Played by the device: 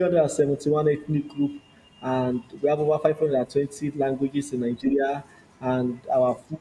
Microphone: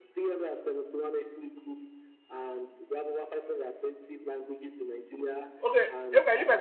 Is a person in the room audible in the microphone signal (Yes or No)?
Yes